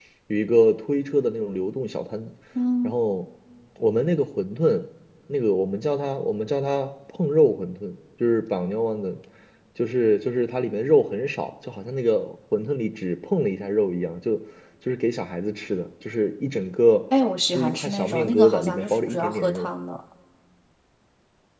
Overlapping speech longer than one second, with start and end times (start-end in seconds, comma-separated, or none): 17.5-19.7